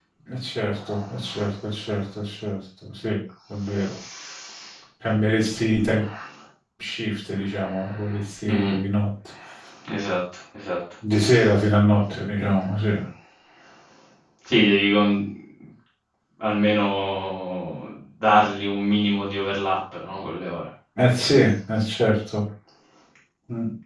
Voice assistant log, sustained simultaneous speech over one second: none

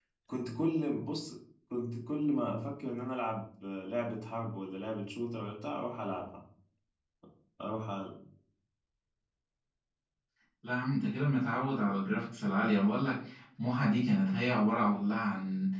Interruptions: none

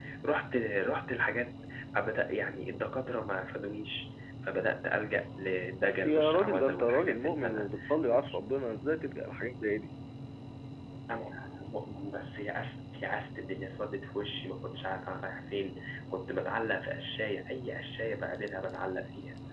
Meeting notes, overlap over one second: present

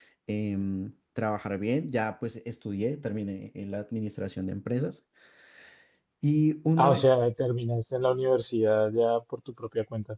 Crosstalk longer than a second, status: none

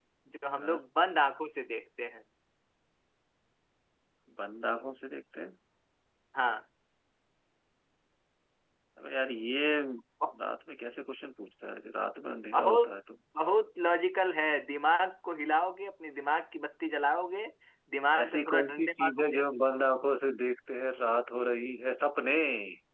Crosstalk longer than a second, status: present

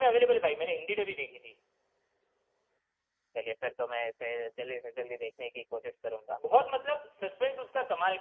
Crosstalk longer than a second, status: none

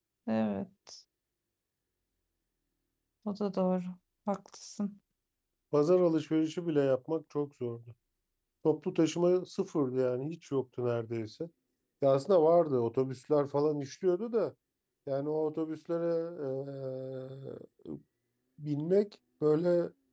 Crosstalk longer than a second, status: none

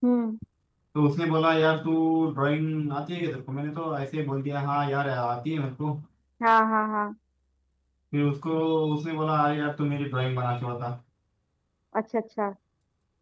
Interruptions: none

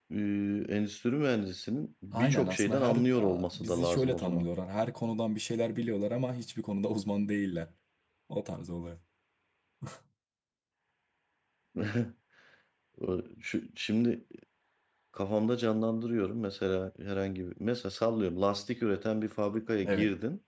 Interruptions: present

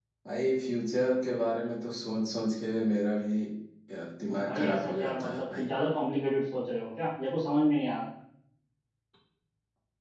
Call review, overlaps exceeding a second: present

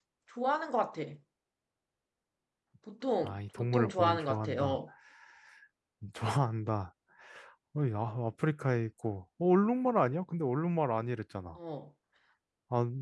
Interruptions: present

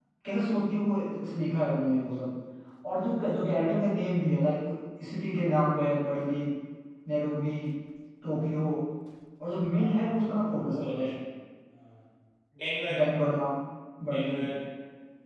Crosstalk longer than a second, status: present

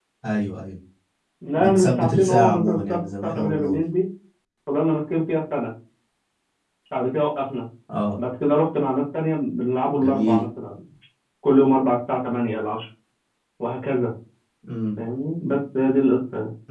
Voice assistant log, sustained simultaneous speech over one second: present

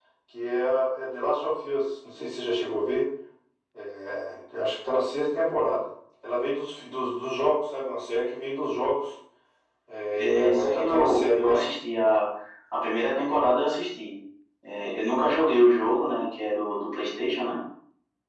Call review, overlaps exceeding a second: present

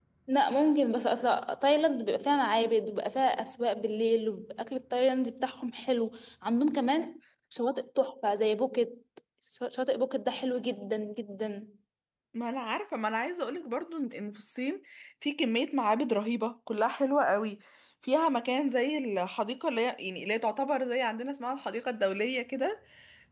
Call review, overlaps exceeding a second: none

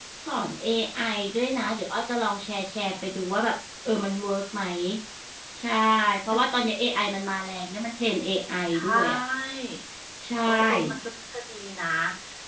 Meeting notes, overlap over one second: none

